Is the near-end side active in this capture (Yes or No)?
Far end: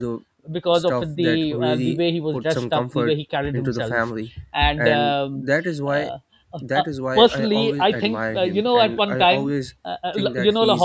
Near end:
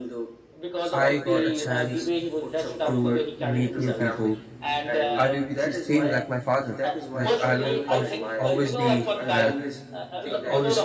Yes